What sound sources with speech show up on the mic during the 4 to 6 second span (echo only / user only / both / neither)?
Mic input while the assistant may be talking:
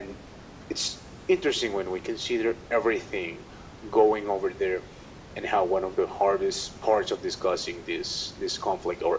echo only